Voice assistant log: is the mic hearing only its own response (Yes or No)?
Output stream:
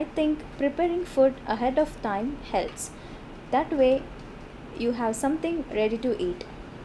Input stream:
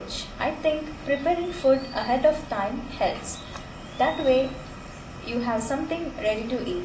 Yes